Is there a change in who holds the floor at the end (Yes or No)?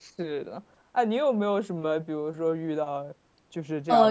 Yes